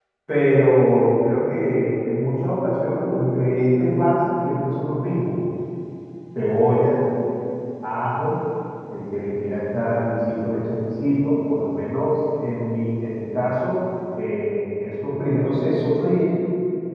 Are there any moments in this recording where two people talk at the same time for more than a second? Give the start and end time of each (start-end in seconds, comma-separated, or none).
none